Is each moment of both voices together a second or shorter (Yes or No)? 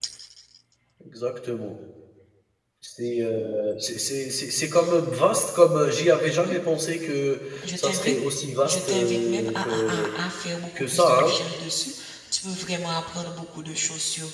No